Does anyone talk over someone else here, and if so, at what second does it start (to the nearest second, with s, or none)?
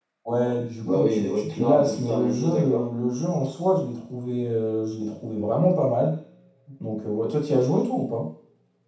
1 s